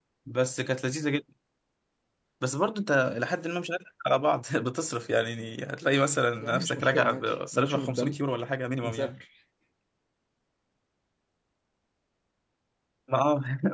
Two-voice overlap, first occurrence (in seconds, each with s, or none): 6.4 s